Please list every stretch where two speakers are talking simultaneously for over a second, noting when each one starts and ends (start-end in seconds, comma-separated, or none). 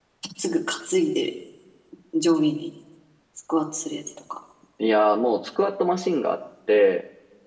none